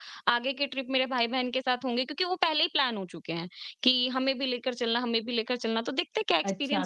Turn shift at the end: Yes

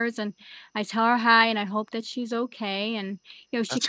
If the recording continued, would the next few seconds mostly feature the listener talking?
No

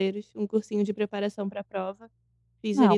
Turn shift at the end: Yes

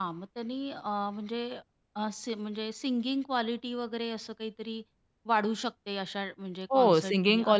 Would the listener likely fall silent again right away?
No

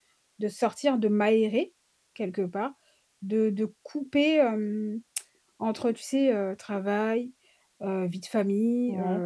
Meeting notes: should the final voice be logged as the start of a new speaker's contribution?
No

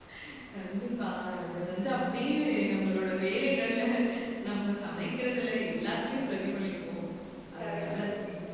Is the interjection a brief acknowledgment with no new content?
No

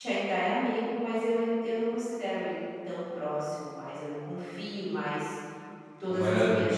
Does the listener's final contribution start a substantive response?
No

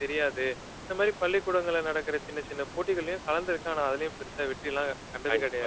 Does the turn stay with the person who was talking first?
No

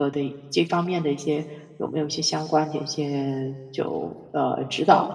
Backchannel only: No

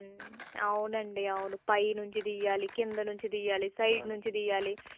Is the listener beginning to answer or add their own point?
No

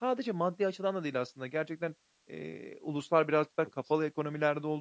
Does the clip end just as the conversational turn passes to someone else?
No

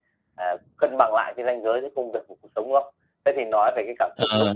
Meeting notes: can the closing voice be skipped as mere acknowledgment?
Yes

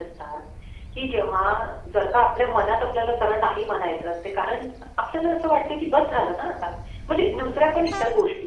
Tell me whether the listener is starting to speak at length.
No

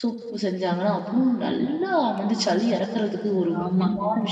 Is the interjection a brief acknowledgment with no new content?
No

